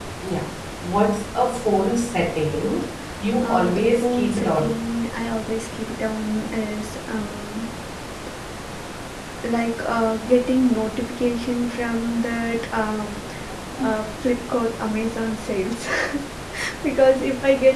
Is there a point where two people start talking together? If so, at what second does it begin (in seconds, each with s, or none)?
3.4 s